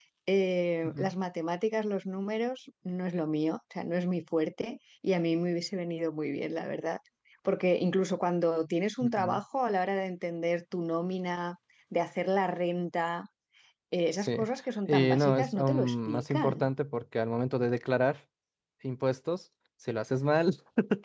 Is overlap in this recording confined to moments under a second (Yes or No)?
No